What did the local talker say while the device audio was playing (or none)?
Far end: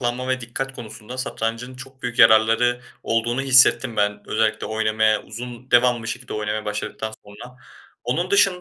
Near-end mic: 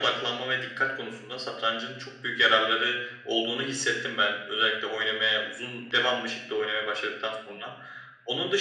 none